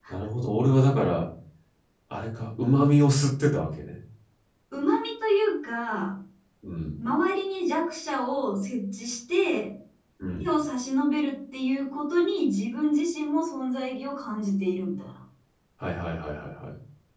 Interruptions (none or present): none